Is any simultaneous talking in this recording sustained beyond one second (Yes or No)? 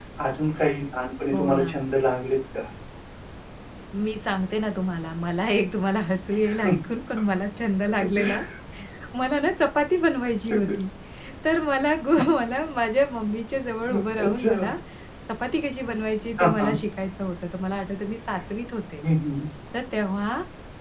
No